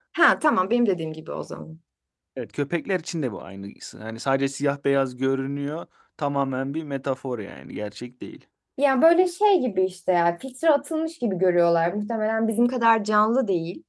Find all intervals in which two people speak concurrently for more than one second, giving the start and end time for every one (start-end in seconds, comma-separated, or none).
none